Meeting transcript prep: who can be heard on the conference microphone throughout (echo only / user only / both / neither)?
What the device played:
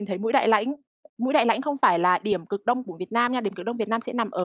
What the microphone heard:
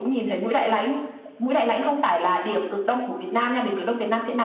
echo only